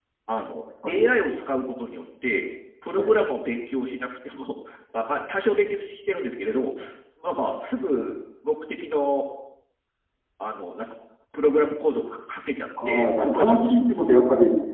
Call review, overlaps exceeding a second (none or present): present